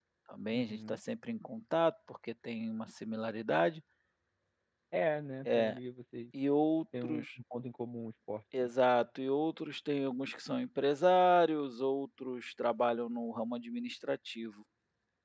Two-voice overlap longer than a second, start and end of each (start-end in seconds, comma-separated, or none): none